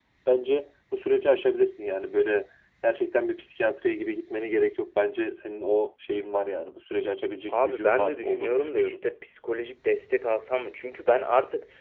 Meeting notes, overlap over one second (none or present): present